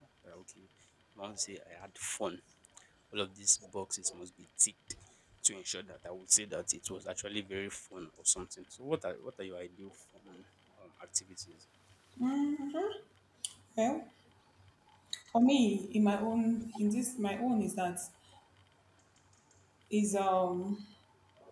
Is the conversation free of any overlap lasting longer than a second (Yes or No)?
Yes